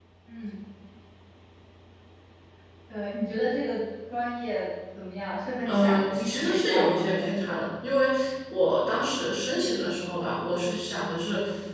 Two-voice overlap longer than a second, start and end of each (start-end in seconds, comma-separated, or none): 5.7-7.7